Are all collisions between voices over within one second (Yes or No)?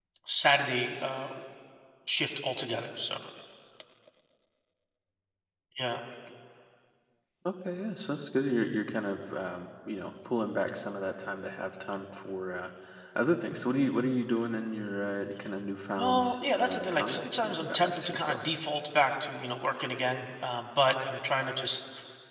No